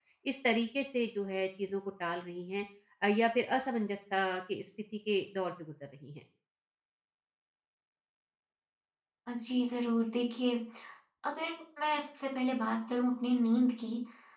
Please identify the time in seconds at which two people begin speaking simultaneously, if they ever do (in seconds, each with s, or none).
none